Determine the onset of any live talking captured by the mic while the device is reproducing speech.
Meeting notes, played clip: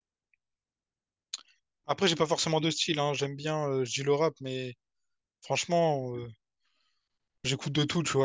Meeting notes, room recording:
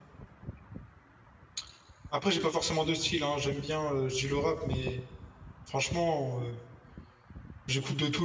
none

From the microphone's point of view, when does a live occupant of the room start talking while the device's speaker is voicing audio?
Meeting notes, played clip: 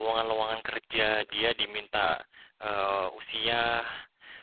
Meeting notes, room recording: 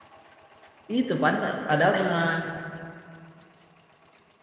0.9 s

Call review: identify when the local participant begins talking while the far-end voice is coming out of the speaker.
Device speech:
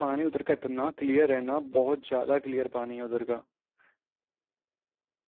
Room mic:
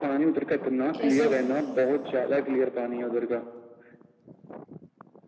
0.9 s

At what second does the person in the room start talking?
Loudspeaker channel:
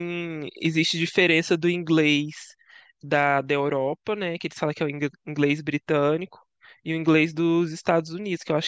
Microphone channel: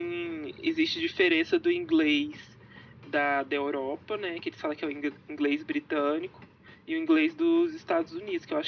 none

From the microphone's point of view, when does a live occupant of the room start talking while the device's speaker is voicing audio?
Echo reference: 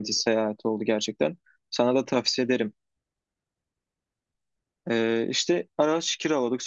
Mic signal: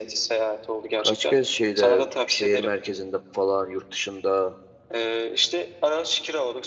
1.0 s

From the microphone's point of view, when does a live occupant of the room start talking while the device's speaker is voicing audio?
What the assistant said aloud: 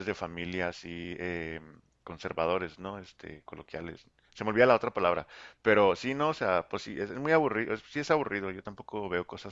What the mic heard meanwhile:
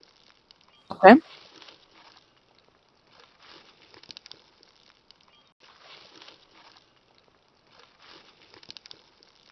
0.9 s

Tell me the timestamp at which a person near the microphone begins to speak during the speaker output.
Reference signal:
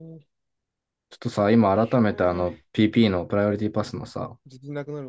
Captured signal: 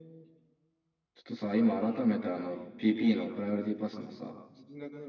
none

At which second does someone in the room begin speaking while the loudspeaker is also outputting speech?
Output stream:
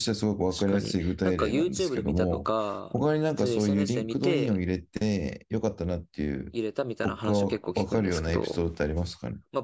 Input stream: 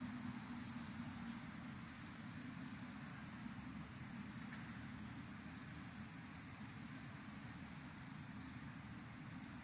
none

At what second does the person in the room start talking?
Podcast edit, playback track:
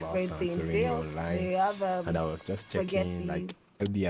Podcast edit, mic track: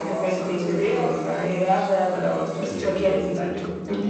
2.6 s

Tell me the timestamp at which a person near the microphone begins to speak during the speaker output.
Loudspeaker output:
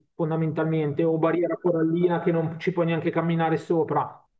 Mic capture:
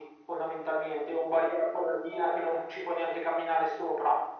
none

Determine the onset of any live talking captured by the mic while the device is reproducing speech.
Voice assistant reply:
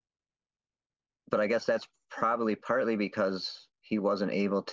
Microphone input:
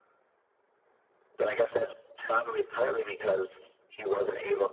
none

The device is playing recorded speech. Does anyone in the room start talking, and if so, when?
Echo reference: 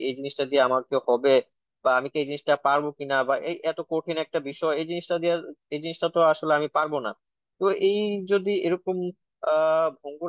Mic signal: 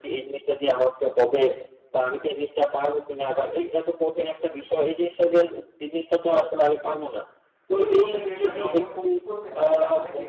7.8 s

